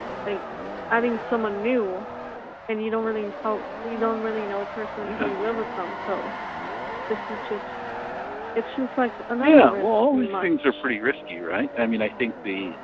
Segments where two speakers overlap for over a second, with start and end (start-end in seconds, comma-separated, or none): 9.4-10.8